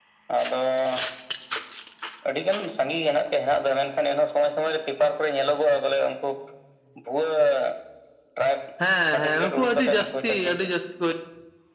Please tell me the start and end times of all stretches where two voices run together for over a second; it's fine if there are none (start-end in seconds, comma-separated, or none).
9.1-10.7